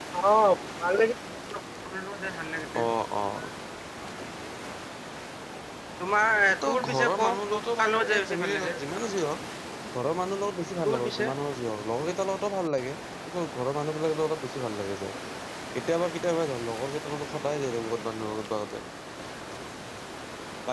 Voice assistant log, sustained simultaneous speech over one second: present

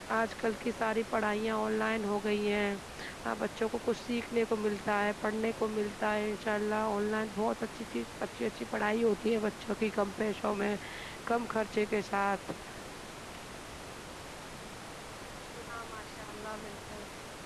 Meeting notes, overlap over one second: none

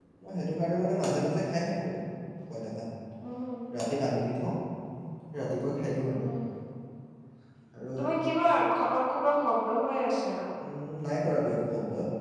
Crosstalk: none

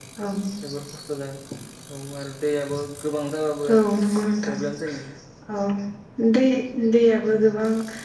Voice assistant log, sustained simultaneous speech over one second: none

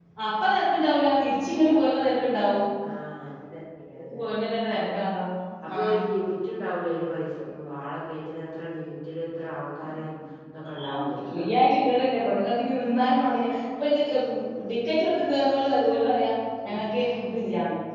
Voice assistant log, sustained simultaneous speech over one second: none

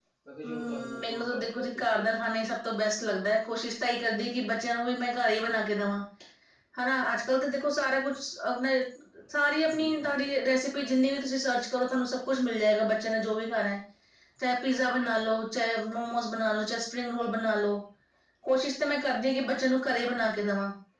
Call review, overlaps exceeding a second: present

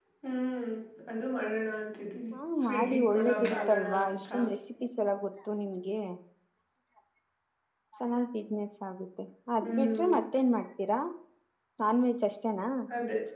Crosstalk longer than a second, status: present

